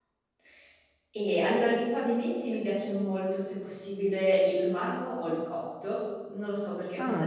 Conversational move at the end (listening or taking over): listening